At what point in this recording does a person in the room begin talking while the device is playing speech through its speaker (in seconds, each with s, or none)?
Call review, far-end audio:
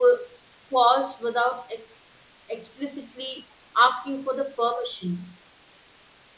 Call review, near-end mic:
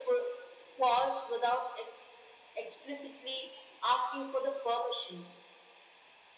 none